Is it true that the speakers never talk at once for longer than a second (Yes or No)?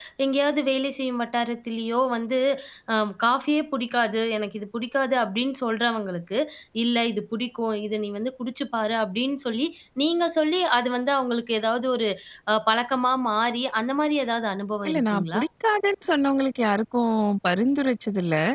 Yes